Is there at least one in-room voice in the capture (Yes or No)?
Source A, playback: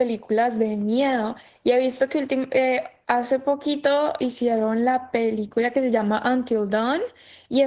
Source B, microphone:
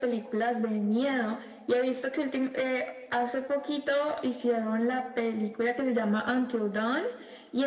No